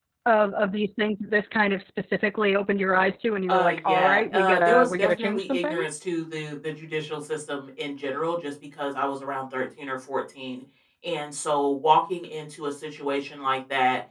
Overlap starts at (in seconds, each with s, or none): 3.5 s